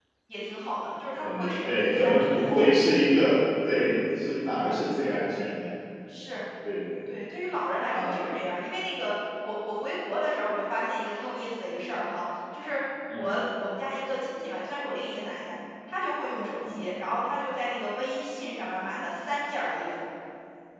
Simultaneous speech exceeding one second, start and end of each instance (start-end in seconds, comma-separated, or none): 1.1-2.9